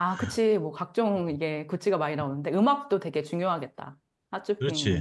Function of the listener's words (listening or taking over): taking over